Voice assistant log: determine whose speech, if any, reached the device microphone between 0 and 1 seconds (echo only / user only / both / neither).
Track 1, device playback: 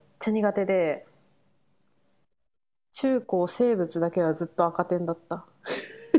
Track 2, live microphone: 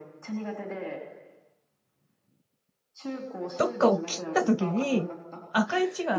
echo only